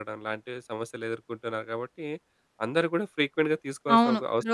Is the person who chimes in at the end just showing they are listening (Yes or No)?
No